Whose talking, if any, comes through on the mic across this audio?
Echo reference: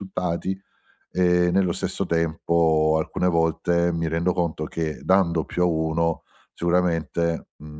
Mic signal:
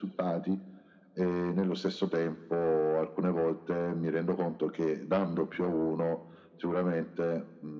echo only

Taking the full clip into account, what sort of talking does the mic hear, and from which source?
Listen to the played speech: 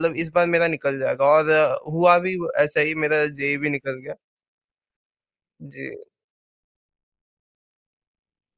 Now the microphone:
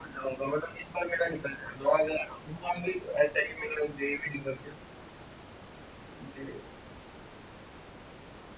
echo only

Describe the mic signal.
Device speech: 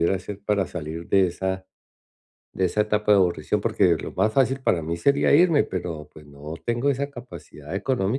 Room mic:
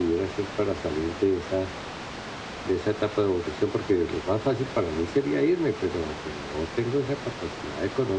echo only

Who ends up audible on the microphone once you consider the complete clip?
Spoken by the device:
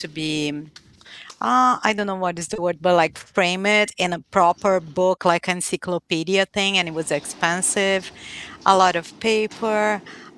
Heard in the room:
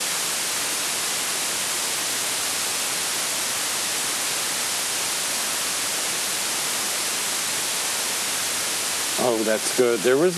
user only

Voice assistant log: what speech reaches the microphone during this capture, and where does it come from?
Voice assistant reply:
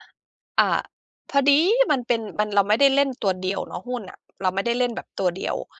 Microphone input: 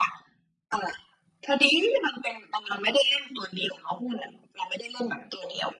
echo only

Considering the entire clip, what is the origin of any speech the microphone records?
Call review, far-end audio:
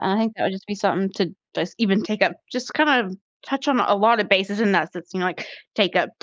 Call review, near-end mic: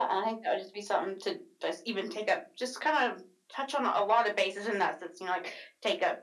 echo only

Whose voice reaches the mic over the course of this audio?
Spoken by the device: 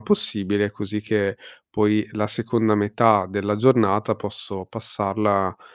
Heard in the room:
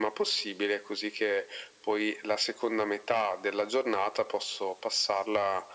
echo only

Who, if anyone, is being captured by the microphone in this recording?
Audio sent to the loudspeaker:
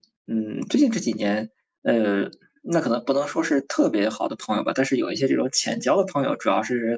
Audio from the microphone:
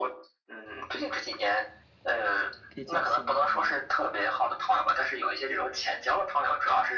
both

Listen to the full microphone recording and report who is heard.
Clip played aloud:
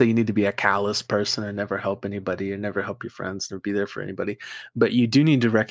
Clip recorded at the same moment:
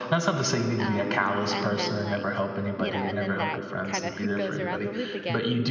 both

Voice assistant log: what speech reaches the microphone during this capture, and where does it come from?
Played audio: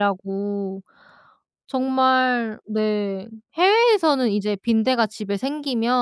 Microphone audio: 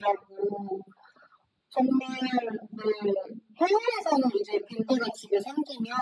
echo only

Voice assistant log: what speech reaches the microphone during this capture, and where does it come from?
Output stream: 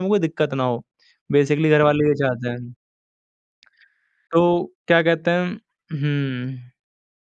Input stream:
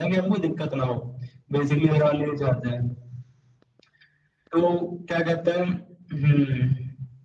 echo only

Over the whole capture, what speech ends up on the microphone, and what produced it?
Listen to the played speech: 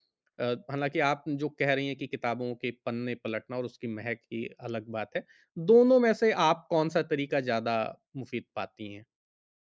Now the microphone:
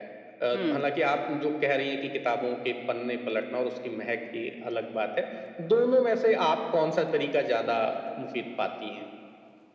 both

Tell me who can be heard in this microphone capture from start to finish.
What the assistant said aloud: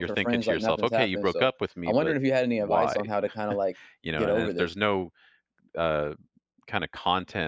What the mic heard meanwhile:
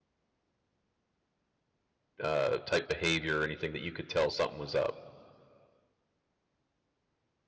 user only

